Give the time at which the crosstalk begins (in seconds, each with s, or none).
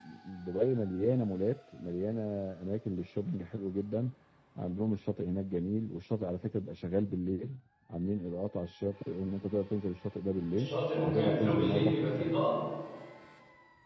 10.5 s